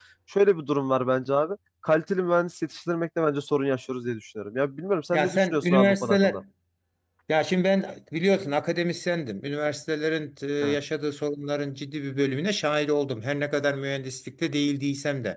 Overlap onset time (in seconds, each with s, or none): 5.1 s